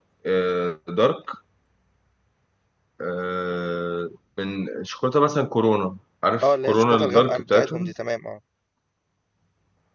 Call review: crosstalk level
present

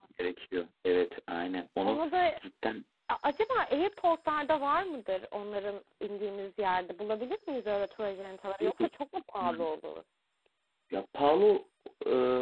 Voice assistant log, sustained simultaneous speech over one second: none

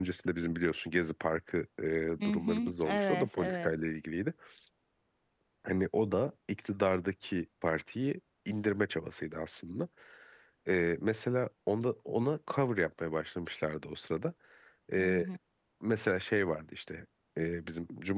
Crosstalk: present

